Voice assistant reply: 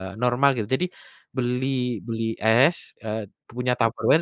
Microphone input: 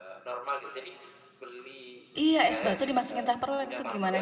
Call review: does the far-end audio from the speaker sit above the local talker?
No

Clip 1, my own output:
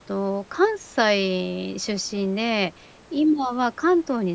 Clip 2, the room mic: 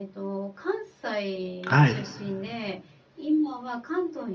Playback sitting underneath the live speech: Yes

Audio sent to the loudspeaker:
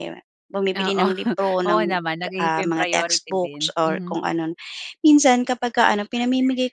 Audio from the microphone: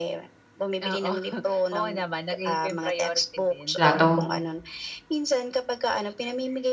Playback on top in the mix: No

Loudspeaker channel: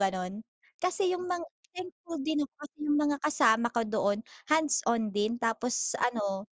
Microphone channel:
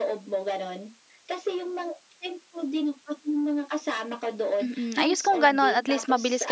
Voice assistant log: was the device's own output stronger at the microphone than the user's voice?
No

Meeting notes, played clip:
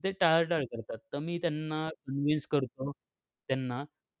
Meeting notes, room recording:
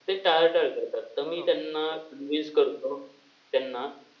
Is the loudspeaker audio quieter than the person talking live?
No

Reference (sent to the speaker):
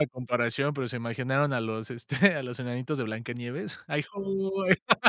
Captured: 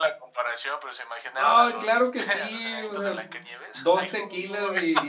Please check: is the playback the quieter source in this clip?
Yes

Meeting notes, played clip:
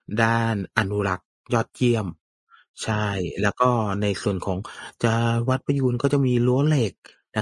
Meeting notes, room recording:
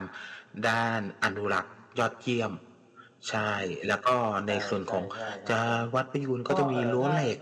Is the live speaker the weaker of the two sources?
Yes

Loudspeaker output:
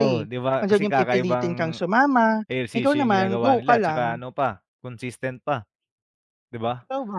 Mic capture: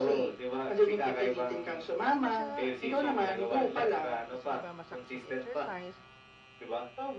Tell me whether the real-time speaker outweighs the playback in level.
No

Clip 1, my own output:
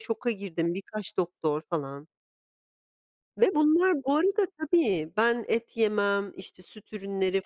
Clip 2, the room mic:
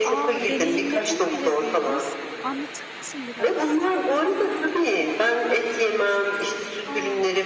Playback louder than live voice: Yes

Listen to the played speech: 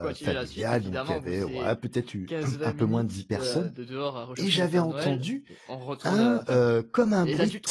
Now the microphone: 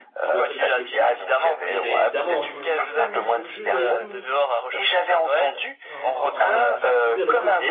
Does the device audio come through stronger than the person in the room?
Yes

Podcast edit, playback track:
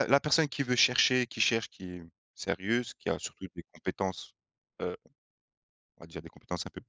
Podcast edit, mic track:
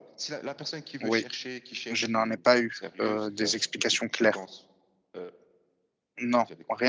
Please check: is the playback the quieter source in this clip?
Yes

